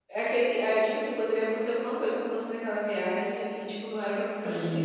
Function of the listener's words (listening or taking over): taking over